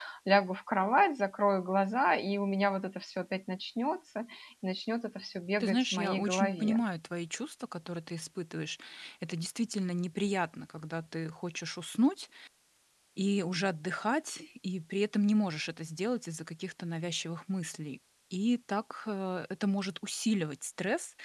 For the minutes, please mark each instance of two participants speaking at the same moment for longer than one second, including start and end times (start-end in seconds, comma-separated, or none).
5.6-6.8